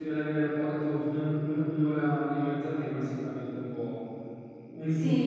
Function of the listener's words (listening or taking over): taking over